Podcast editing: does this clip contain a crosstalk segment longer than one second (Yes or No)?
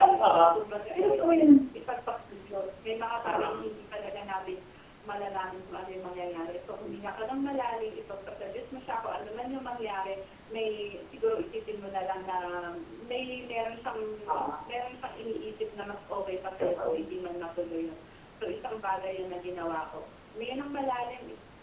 No